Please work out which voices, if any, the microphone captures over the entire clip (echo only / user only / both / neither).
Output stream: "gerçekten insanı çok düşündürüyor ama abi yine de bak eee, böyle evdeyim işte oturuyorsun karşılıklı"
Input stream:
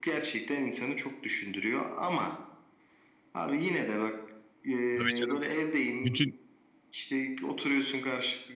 both